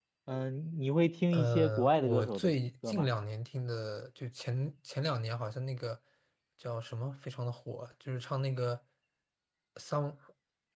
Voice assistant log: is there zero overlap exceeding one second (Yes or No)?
No